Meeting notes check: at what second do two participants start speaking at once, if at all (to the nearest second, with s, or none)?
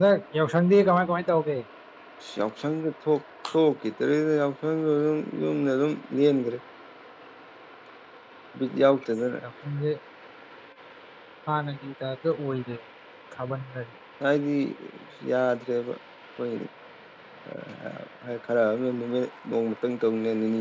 none